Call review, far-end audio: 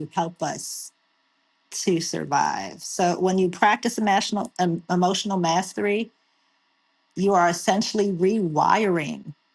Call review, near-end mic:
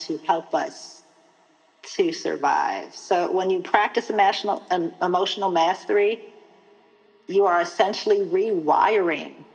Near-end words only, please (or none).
none